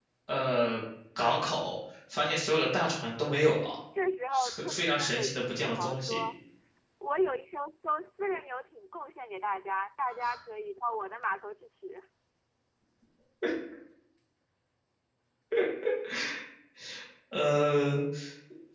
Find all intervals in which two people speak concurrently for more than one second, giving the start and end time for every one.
4.3-6.2

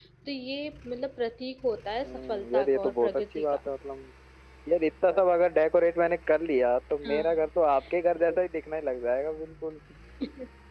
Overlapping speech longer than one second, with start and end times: 2.0-3.6

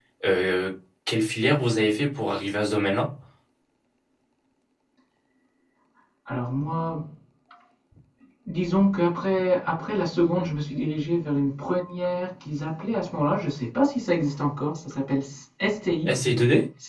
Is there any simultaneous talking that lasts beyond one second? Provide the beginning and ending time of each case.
none

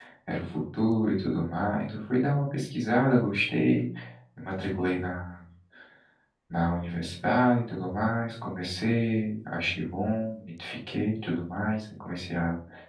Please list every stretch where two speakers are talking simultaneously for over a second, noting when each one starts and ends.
none

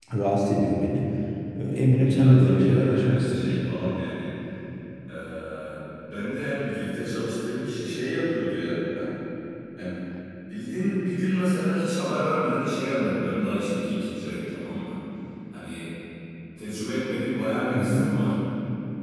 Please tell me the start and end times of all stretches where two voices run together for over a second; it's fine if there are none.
2.0-3.6

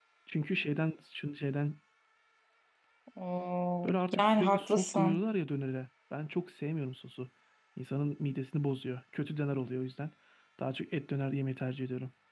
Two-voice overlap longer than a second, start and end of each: 3.9-5.2

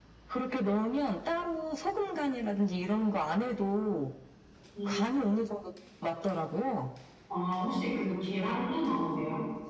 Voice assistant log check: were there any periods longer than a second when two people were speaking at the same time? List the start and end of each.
none

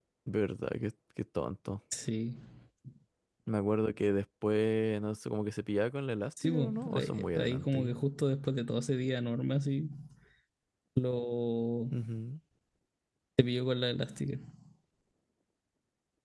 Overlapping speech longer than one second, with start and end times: 6.4-8.0

